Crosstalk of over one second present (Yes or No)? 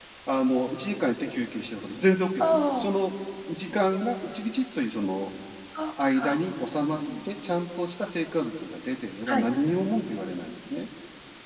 No